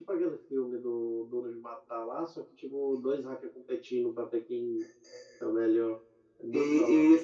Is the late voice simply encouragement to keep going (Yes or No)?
No